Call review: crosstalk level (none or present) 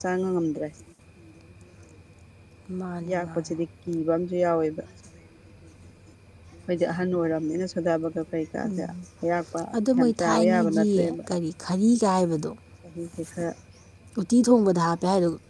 present